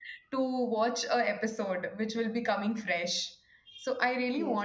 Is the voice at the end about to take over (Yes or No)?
Yes